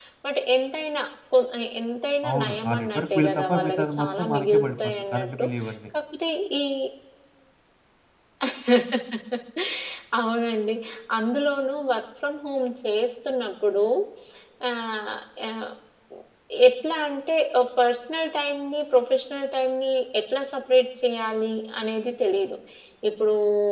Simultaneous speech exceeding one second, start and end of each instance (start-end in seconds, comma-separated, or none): 2.3-5.5